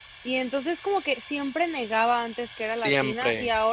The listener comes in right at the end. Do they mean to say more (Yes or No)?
No